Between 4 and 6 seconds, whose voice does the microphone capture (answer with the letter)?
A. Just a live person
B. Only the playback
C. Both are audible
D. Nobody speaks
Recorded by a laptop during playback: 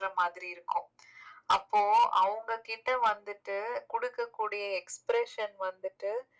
B